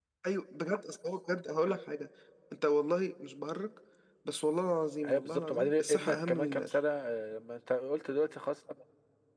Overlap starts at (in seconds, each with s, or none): 5.0 s